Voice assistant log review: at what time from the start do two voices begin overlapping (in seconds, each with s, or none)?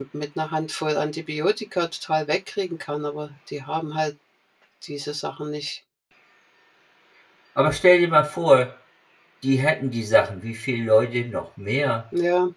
none